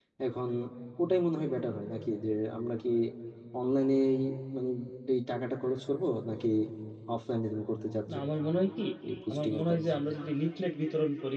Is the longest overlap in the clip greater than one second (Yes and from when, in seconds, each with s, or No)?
No